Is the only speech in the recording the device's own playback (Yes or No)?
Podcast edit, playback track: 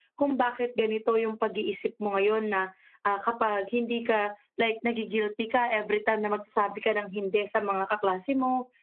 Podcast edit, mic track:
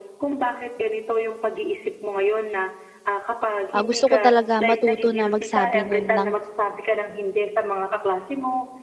No